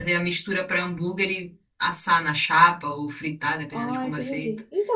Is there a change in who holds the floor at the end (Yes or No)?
Yes